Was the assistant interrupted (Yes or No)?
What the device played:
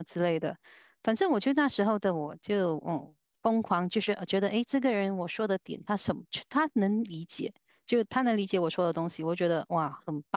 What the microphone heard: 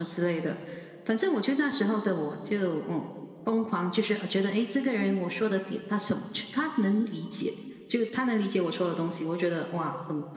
No